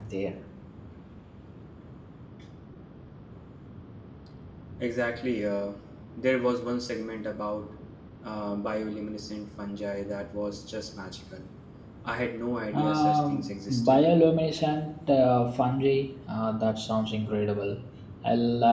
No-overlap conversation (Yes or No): No